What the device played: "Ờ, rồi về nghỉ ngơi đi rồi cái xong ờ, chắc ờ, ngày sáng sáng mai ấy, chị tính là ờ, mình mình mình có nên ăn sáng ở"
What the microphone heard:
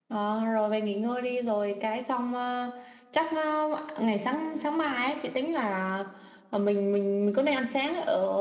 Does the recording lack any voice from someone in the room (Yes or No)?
Yes